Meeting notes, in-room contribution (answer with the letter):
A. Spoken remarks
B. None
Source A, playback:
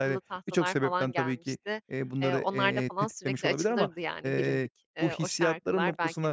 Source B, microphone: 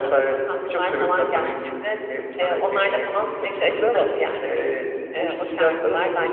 B